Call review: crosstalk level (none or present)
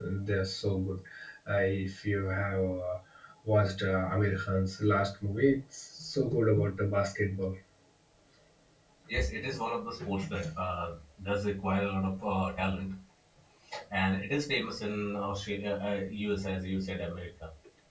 none